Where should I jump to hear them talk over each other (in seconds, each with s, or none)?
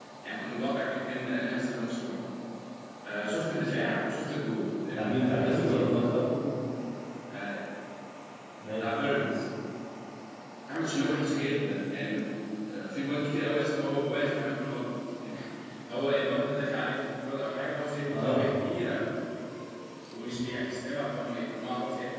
4.8 s